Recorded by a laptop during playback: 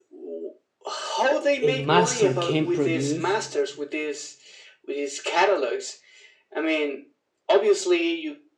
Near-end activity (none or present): present